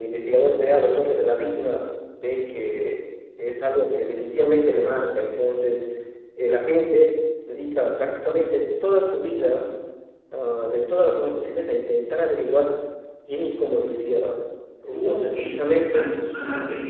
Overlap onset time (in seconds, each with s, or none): 14.8 s